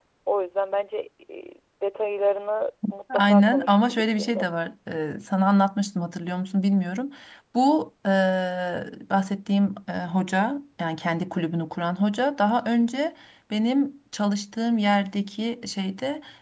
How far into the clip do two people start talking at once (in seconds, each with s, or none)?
3.1 s